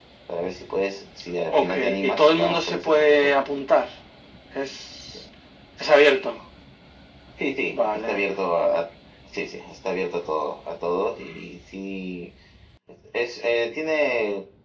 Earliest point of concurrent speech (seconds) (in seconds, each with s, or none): 1.5 s